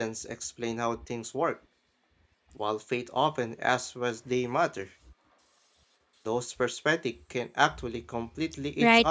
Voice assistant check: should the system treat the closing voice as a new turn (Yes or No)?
Yes